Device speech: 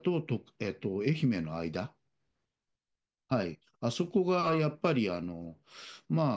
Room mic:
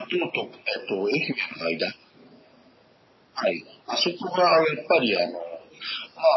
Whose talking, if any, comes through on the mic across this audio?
echo only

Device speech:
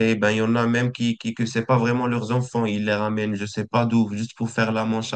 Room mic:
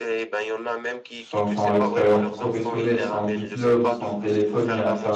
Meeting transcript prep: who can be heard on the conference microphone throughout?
both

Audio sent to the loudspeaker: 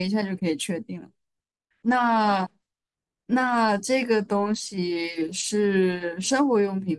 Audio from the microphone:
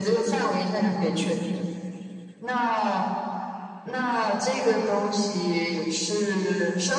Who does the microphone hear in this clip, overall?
echo only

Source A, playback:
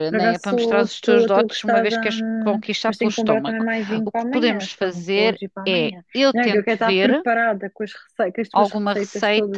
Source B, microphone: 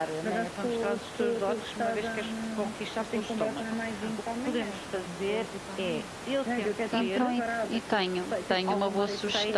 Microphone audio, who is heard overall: both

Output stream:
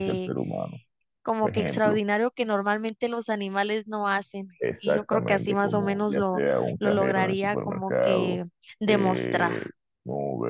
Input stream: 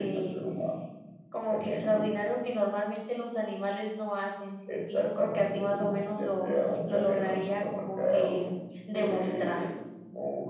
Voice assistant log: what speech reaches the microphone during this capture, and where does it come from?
echo only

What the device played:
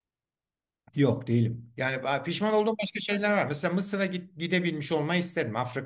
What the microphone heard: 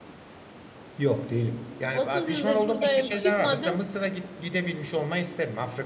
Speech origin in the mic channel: both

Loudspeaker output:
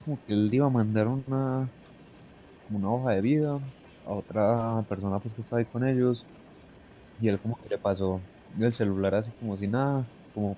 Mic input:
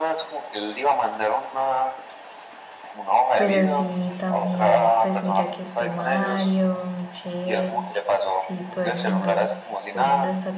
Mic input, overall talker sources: both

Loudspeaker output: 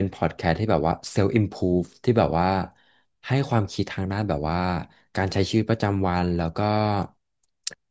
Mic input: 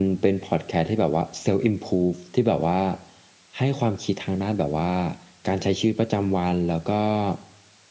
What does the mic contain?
echo only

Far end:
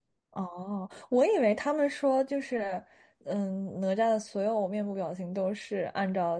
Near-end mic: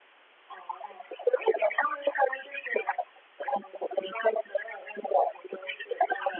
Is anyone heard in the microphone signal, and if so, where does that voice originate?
echo only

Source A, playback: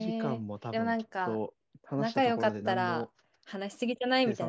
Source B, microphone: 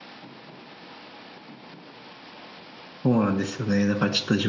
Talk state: user only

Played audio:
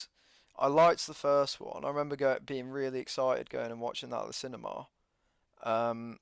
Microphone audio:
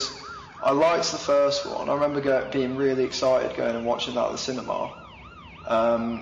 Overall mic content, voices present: echo only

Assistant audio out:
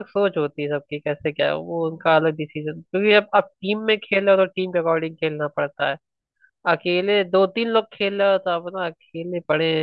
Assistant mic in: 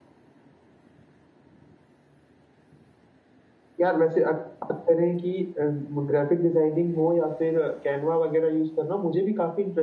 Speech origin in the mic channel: user only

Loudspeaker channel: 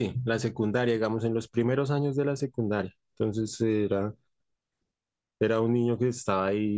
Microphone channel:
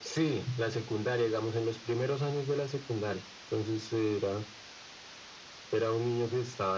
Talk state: echo only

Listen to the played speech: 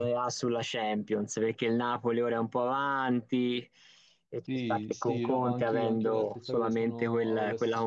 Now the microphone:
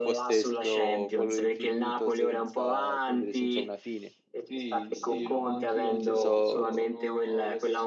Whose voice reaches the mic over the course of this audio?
both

